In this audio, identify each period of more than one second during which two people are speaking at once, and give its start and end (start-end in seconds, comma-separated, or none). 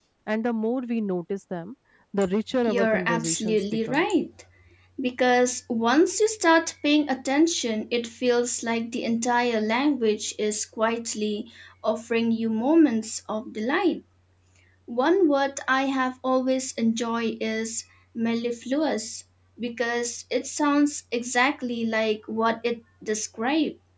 2.6-4.0